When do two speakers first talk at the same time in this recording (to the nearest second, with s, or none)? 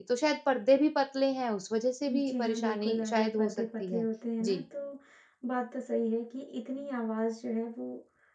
2 s